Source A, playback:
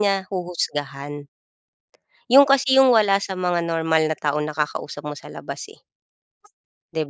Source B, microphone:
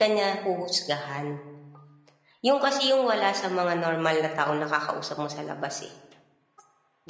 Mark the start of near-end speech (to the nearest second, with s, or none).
none